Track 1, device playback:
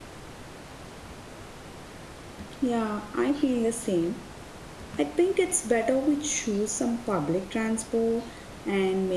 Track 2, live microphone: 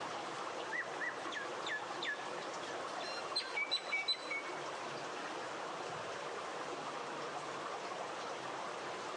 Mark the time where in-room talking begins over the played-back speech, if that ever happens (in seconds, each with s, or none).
none